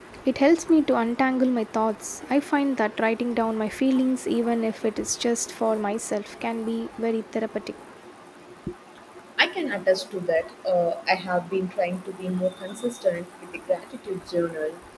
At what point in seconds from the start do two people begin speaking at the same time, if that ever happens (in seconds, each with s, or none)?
none